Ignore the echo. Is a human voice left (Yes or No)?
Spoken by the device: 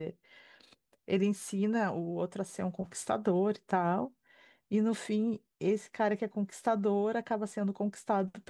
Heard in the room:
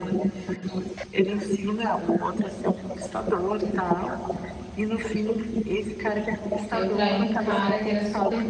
Yes